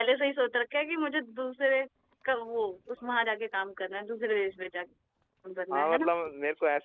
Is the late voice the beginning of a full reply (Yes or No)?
Yes